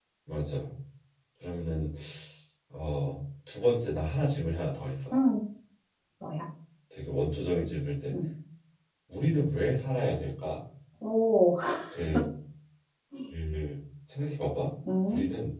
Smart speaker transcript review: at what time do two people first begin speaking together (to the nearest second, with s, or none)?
none